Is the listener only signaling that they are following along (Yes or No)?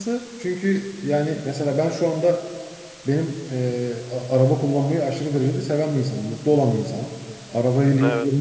Yes